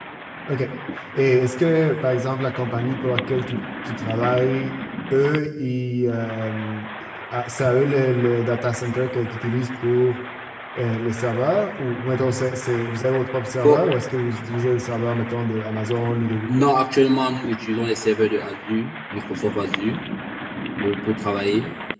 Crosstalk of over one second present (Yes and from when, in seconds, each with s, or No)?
No